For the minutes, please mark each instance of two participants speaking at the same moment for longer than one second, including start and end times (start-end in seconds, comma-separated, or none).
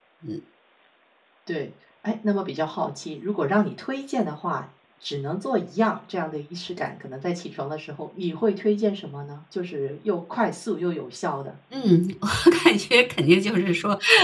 none